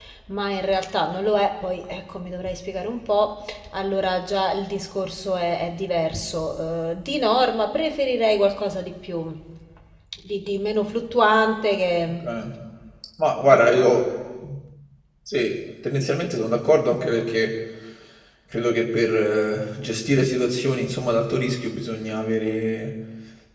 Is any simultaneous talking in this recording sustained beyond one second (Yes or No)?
No